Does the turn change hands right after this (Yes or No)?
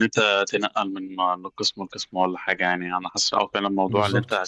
No